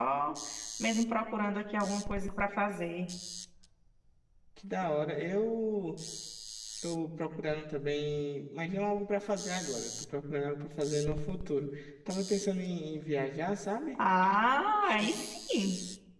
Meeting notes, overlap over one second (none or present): none